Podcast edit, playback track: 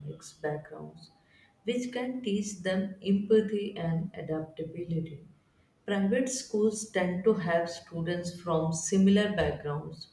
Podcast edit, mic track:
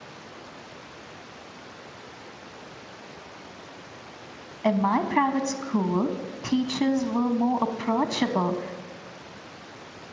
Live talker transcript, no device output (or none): In my private school, teachers were more approachable